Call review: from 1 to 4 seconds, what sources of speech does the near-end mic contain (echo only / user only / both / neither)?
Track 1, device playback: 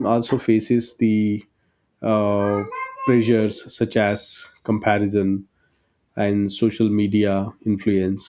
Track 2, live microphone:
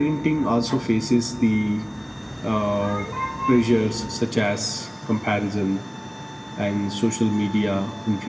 echo only